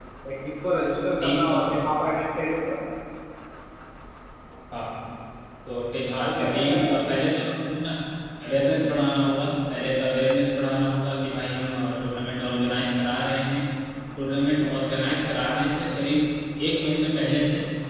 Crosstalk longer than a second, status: present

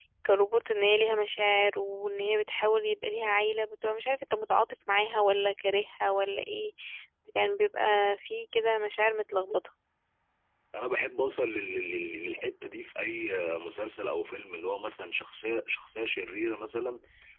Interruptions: none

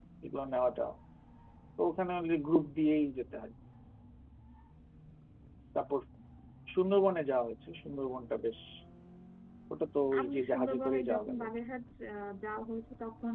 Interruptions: present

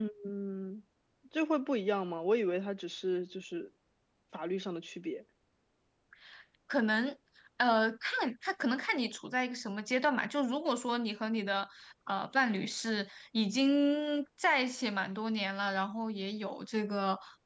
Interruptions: none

